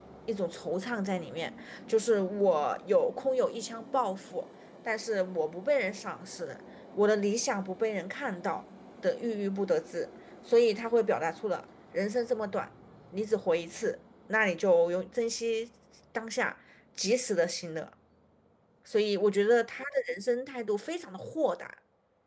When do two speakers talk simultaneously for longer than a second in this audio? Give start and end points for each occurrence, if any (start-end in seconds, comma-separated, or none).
none